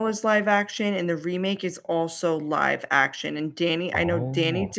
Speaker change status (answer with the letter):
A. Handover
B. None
B